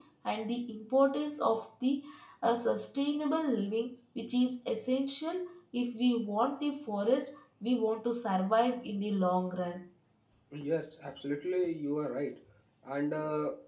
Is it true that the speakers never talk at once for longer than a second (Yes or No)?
Yes